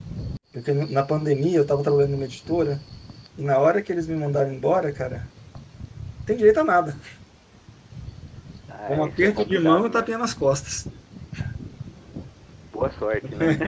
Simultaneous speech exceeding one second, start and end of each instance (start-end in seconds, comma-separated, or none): 8.9-10.1